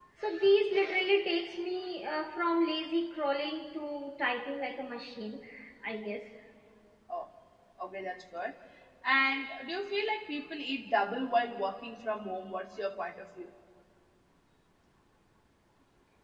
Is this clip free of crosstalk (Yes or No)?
Yes